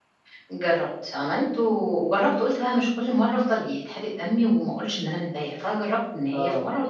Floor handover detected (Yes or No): No